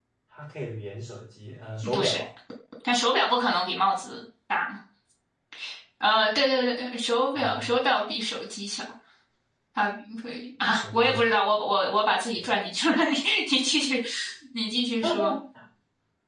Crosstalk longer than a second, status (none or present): none